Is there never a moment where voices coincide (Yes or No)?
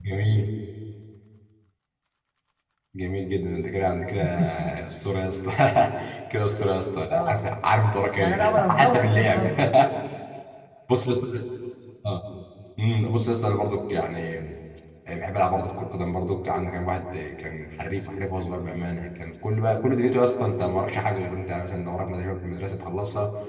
No